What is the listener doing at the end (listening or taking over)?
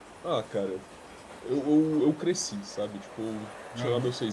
listening